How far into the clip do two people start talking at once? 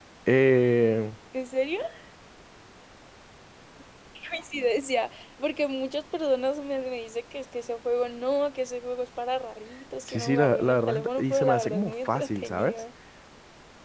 10 s

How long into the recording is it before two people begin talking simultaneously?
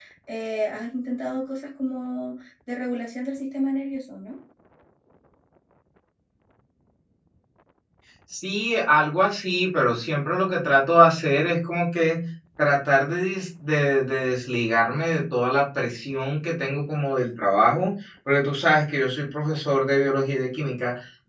none

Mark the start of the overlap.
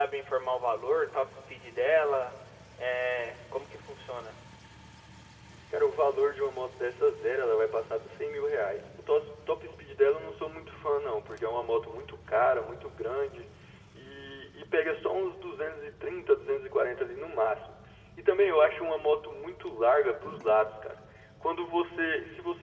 none

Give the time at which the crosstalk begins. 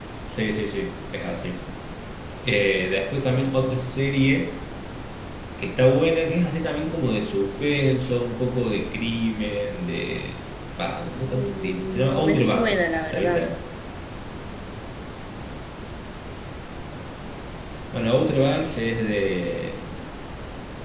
11 s

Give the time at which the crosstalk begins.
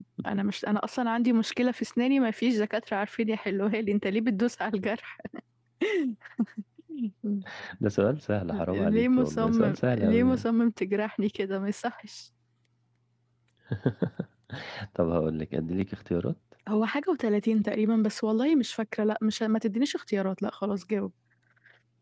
9 s

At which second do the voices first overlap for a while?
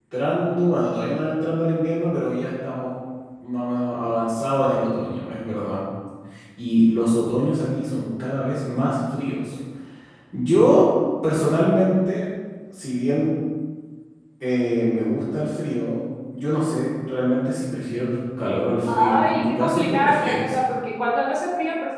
19 s

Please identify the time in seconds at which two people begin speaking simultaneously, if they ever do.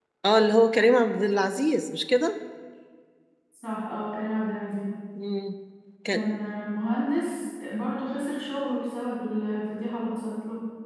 none

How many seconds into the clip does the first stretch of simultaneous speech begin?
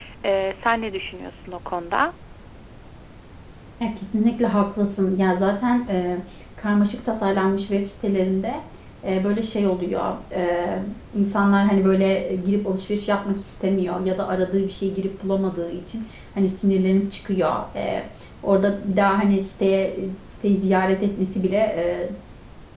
none

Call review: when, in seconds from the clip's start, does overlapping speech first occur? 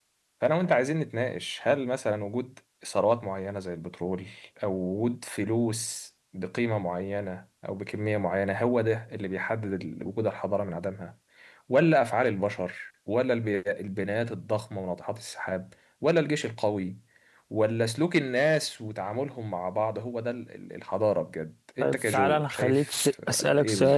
22 s

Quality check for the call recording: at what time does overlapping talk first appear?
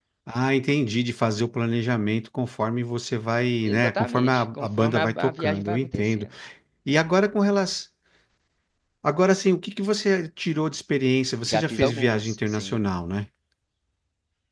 4 s

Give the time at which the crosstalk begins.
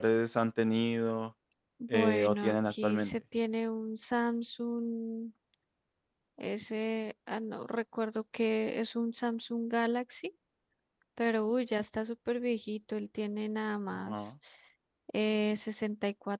2 s

